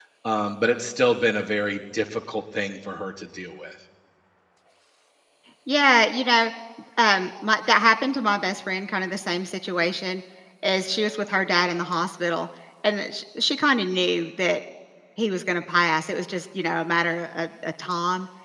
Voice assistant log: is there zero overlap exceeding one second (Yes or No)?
Yes